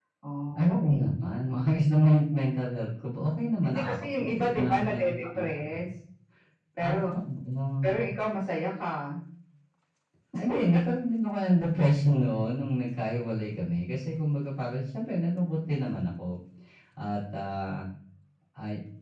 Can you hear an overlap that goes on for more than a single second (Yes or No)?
Yes